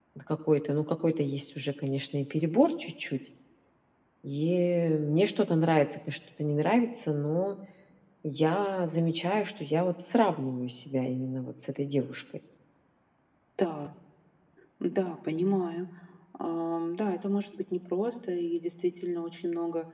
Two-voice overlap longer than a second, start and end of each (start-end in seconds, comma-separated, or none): none